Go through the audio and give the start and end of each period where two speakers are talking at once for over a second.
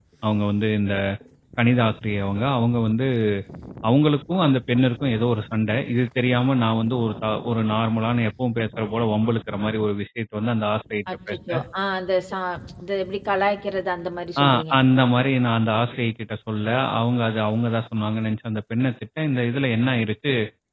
none

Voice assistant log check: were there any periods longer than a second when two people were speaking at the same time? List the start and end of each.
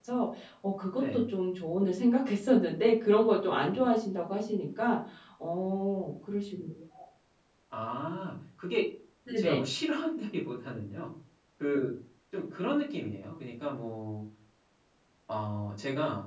none

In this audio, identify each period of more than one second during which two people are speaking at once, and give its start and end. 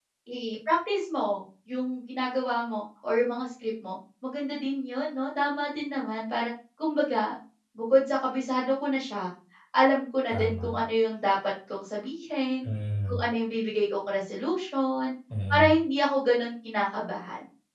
none

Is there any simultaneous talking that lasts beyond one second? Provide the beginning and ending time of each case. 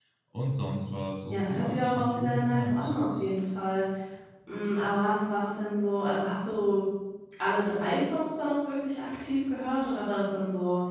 1.3-2.9

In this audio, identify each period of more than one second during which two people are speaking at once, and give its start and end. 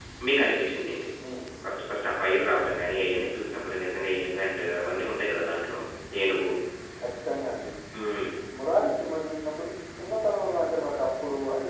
none

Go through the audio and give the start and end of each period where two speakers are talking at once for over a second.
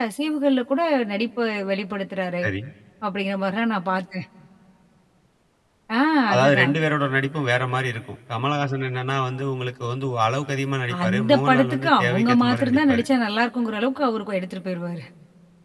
11.0-13.0

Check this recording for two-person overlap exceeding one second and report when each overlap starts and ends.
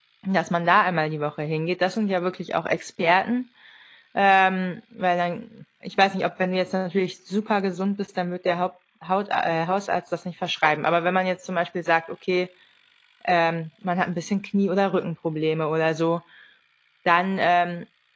none

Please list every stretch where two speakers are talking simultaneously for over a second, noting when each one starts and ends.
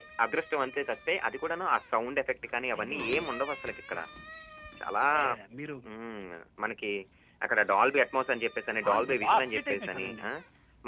8.9-10.2

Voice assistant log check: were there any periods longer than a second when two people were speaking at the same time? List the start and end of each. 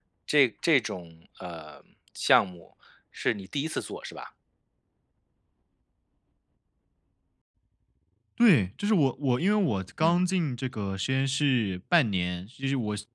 none

